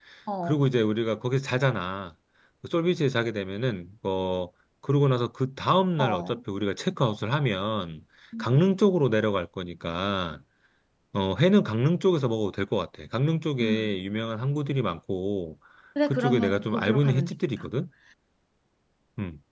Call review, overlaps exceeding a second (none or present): present